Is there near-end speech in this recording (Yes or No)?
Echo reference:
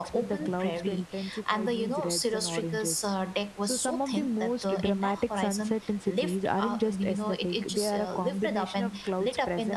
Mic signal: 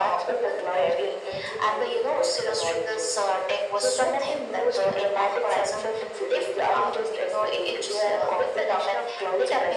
No